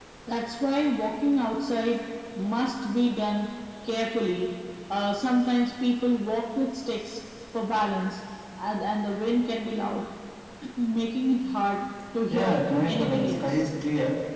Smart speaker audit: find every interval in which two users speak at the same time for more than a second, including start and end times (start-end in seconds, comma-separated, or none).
12.3-13.6